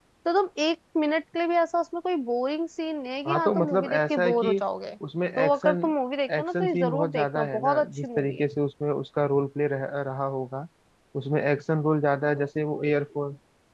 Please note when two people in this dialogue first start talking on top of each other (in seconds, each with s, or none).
3.3 s